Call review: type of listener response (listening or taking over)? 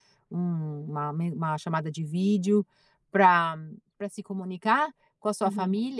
listening